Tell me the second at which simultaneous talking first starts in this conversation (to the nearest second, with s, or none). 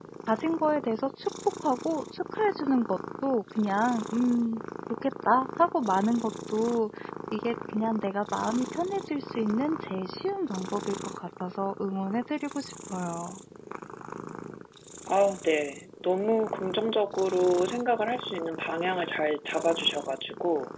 none